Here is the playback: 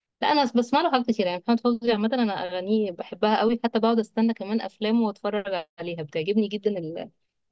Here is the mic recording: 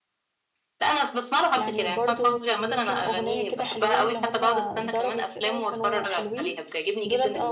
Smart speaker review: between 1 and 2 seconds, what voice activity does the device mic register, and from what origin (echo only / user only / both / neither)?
both